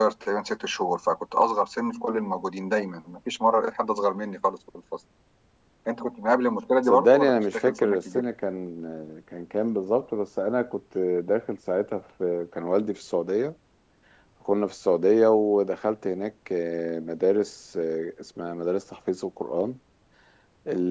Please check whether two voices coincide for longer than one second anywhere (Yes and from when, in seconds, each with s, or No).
Yes, from 6.9 s